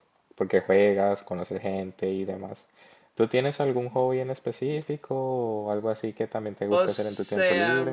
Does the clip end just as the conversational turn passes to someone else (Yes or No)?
Yes